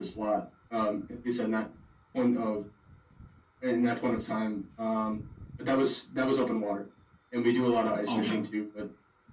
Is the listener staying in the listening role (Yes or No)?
Yes